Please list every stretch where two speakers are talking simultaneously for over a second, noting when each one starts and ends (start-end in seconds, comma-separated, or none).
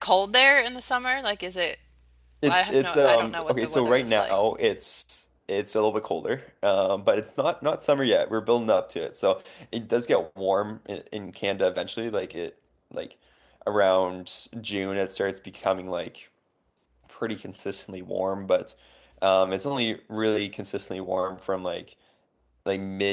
2.4-4.3